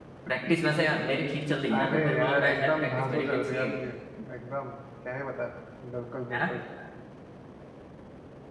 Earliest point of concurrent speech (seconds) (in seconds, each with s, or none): 1.7 s